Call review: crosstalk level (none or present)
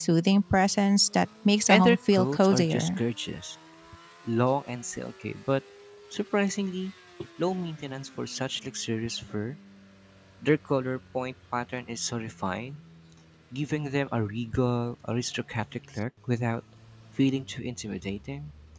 present